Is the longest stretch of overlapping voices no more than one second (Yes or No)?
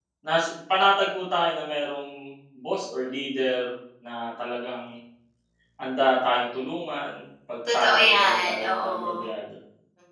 No